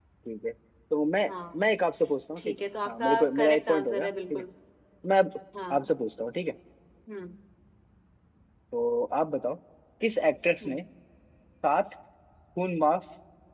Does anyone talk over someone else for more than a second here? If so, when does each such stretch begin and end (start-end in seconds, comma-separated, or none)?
2.4-4.5